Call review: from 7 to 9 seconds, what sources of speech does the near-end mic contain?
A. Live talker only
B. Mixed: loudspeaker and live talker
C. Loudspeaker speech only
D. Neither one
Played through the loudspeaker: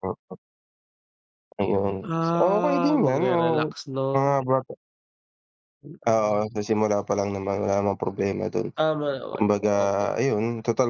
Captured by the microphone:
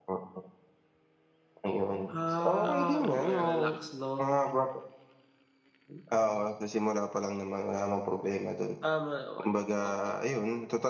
C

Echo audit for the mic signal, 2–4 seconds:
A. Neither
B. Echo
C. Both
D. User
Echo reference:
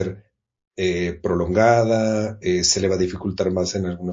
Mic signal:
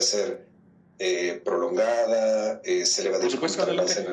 C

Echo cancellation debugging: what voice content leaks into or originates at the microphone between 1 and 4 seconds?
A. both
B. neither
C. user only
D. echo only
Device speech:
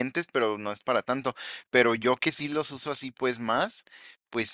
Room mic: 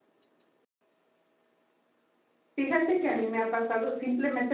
C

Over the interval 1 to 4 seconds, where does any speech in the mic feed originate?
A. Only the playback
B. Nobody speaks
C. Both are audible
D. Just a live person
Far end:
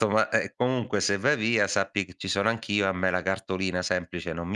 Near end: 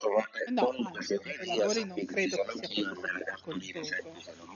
C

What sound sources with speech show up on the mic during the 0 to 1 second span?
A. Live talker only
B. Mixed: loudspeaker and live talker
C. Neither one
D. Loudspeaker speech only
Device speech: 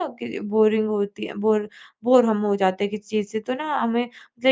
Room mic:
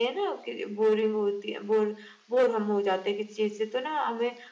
D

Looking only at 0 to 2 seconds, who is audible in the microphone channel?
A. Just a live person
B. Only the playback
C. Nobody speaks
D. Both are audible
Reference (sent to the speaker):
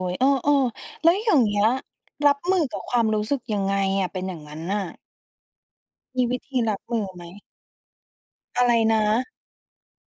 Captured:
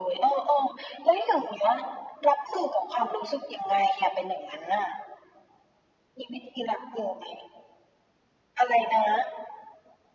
B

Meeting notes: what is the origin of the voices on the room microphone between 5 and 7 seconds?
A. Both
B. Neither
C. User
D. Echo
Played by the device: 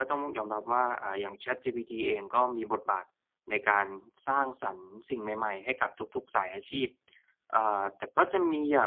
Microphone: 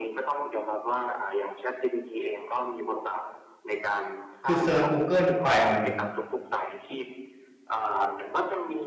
A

